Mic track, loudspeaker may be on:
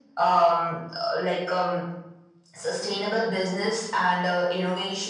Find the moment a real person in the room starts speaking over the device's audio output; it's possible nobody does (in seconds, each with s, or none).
none